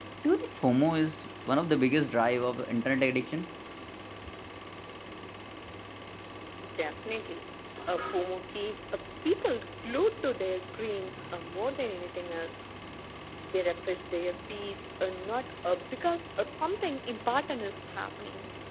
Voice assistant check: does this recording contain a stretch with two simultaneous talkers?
No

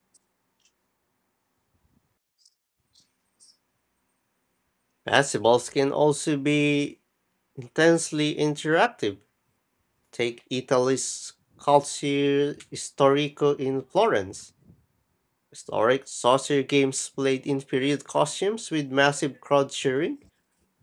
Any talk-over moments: No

